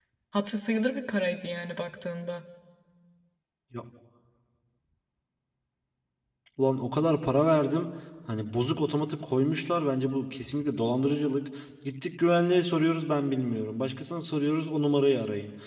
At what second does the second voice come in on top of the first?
none

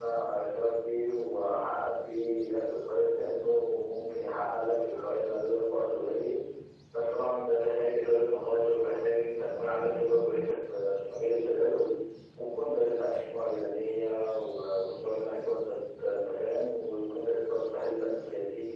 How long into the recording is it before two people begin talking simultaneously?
none

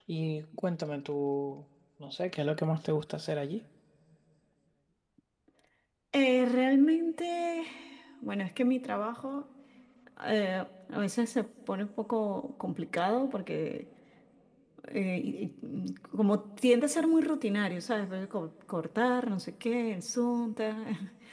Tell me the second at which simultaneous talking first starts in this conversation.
none

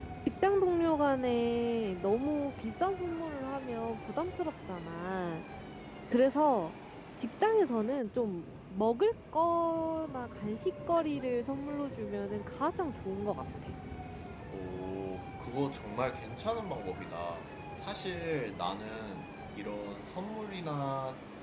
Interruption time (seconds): none

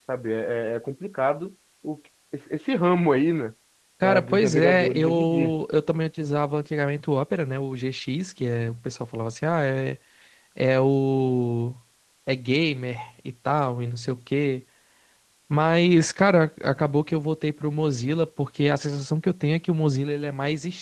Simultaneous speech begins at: 4.0 s

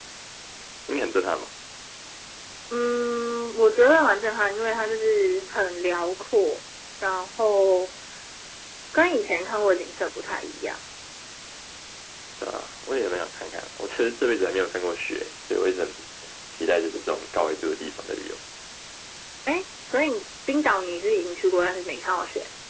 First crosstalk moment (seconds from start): none

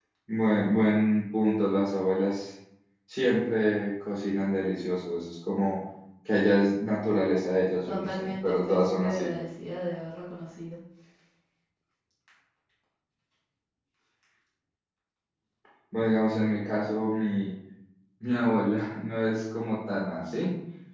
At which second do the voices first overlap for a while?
7.8 s

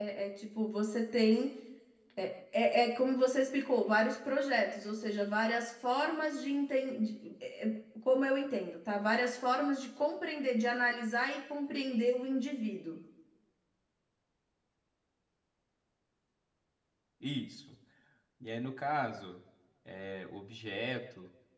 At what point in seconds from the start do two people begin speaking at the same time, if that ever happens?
none

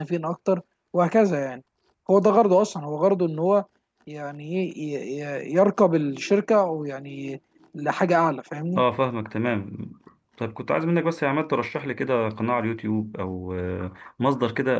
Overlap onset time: none

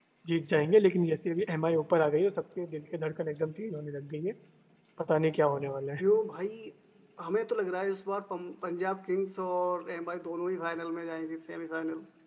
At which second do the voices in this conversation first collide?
none

